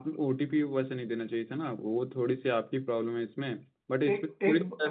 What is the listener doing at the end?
taking over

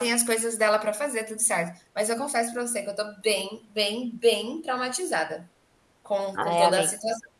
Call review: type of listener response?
taking over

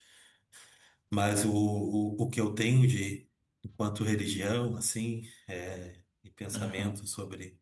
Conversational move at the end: listening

